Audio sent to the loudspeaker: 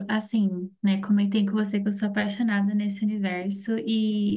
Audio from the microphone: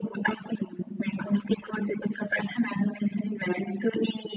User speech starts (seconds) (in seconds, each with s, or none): none